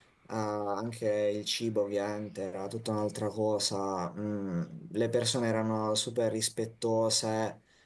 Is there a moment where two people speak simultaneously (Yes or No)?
No